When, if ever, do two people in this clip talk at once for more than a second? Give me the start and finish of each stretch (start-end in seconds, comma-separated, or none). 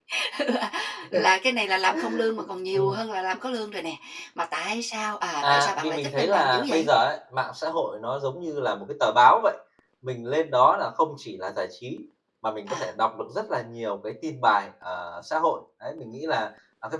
5.4-6.9